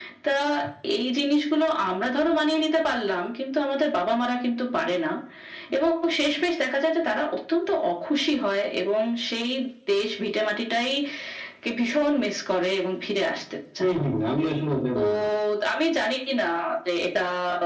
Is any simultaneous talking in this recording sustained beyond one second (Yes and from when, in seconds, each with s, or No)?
No